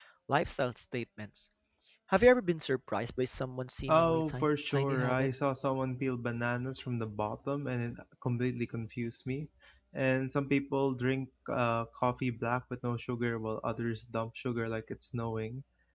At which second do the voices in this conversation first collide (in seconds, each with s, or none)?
3.9 s